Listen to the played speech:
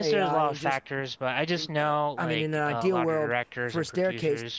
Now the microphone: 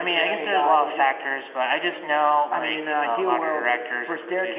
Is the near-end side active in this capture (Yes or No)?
No